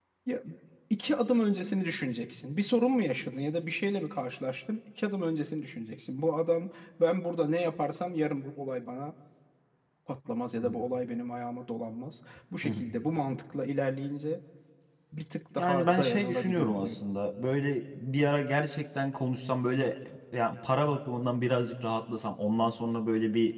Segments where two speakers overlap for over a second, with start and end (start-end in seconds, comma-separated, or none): 15.6-17.0